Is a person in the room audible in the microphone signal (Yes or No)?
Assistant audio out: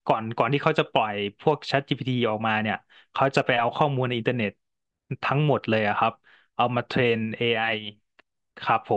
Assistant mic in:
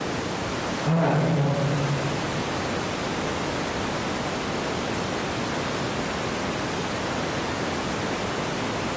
Yes